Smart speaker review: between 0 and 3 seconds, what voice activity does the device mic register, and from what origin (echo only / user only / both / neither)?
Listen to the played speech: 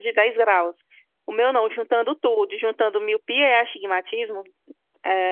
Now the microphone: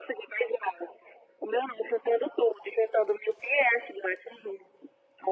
echo only